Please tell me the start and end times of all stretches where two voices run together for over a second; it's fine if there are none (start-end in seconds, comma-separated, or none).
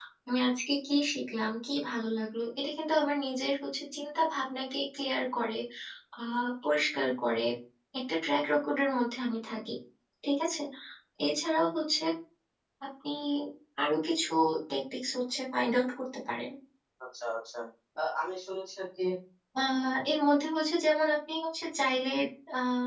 none